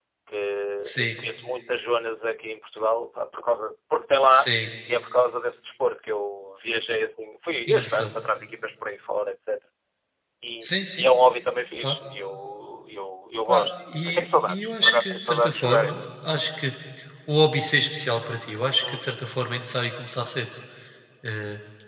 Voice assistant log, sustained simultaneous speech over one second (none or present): present